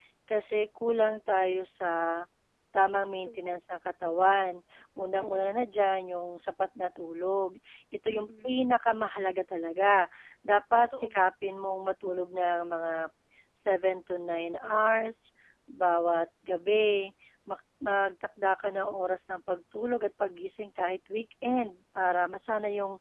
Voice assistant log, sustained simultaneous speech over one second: none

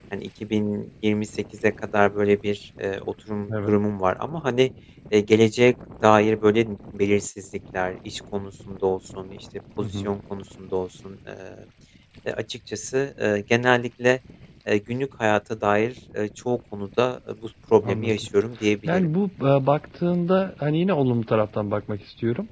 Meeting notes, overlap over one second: none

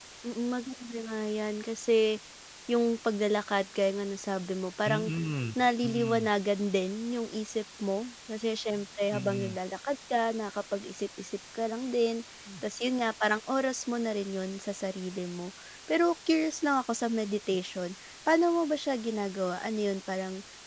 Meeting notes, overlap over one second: none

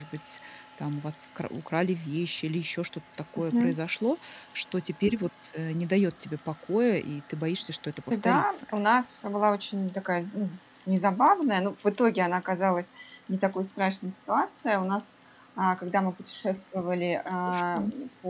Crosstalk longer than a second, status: none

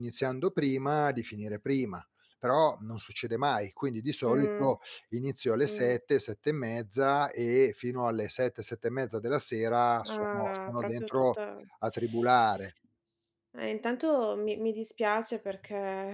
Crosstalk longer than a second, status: present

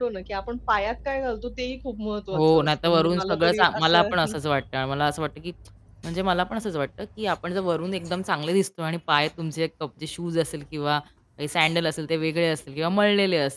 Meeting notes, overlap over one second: present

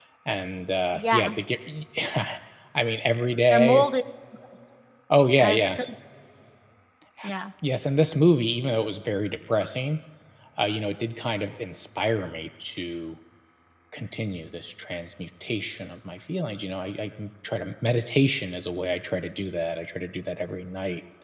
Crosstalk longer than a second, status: none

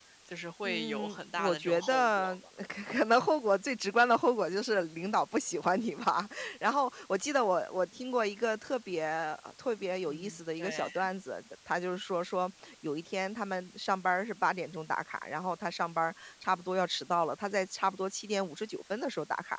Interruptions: present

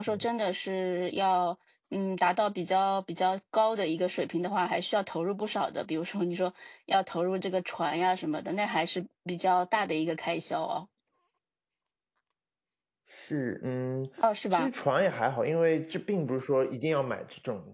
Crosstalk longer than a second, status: none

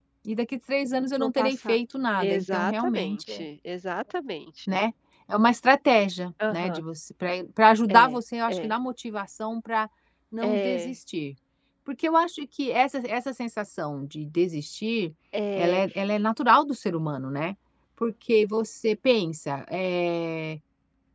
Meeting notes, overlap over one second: present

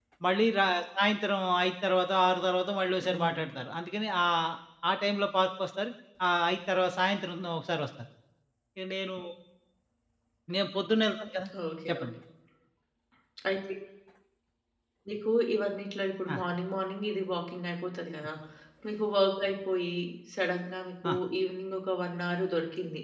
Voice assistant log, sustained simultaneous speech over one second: none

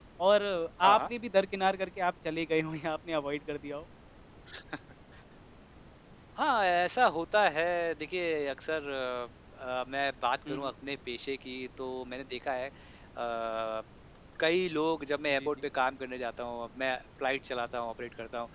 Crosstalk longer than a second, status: none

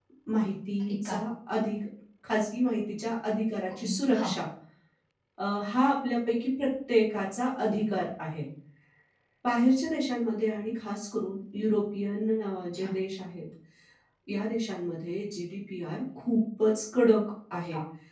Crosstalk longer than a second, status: none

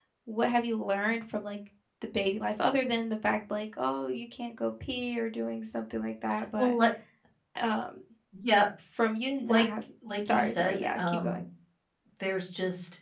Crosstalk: present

